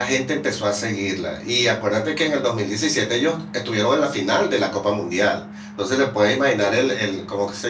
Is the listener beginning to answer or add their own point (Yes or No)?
No